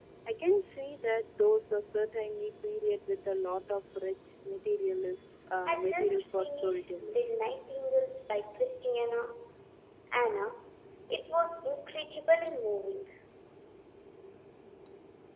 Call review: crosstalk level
present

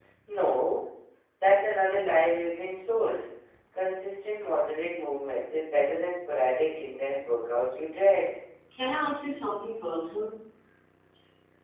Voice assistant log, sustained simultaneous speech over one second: none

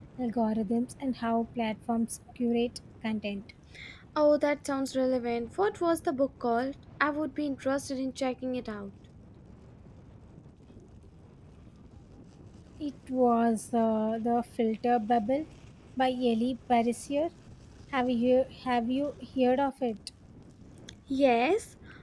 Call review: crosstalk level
none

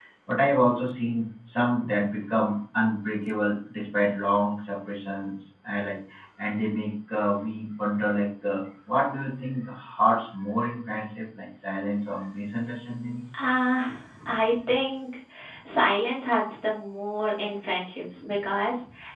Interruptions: none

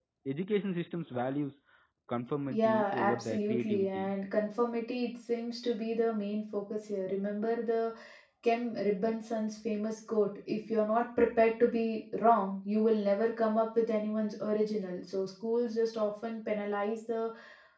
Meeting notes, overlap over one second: present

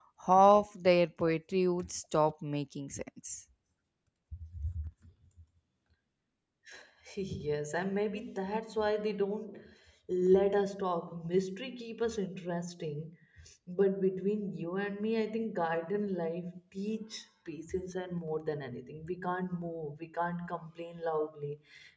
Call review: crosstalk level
none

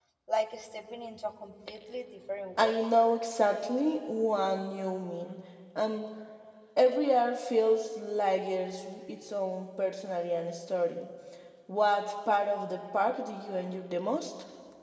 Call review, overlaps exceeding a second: none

